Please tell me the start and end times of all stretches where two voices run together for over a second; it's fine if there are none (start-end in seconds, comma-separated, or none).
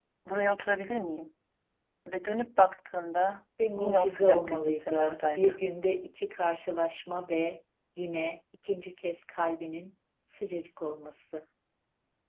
3.8-5.6